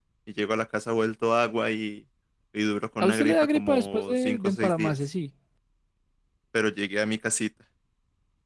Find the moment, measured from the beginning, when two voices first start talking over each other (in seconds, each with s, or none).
3.0 s